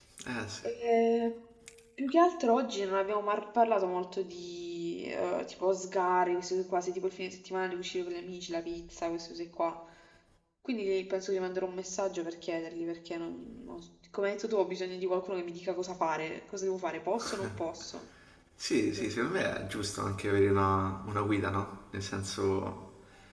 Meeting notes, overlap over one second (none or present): none